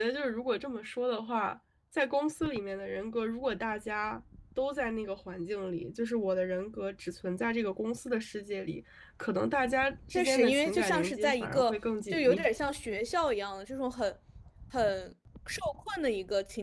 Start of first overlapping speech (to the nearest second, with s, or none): 10 s